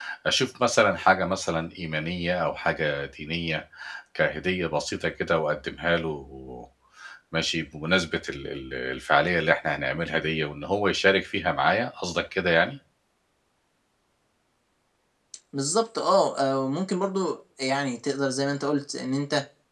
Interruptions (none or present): none